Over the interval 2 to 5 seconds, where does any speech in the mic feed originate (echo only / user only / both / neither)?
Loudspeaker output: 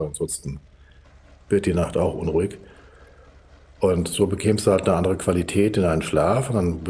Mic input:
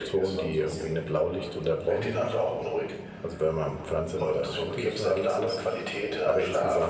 both